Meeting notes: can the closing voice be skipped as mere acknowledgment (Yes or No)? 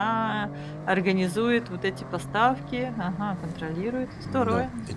No